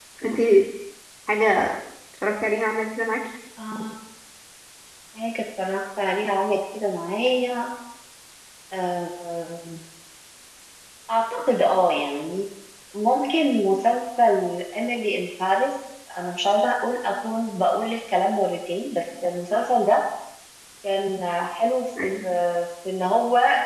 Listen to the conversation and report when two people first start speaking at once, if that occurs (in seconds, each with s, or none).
none